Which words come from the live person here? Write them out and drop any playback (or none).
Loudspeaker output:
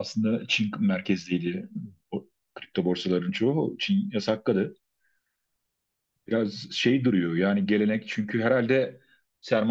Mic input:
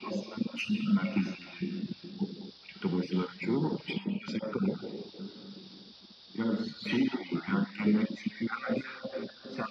none